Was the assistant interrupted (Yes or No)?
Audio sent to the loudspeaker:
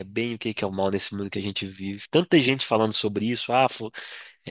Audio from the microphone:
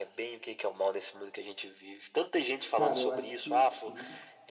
Yes